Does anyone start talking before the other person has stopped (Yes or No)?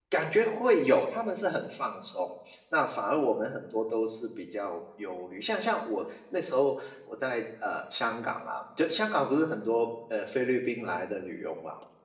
No